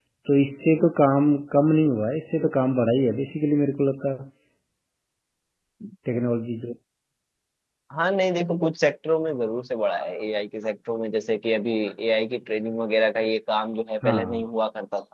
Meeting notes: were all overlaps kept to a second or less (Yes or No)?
Yes